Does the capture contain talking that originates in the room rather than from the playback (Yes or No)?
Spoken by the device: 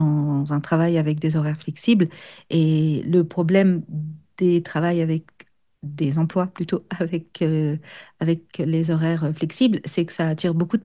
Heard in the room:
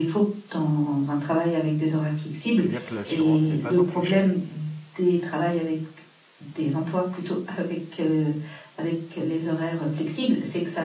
Yes